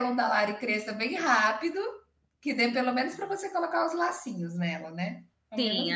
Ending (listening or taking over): taking over